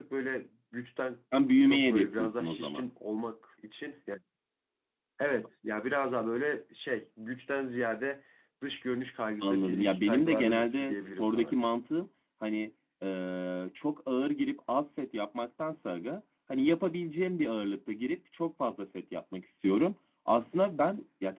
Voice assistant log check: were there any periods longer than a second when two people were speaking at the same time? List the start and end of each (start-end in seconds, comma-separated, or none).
1.6-2.8, 9.4-11.5